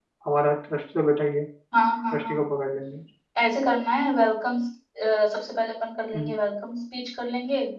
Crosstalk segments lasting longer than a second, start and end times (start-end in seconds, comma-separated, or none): none